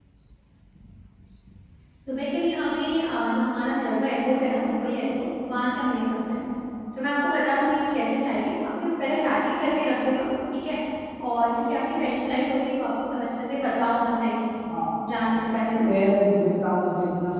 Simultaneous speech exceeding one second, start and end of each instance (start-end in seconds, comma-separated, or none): none